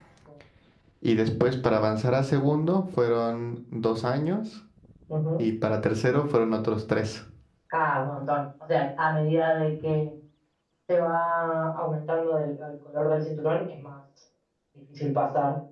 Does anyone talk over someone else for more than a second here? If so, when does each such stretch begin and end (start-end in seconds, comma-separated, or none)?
none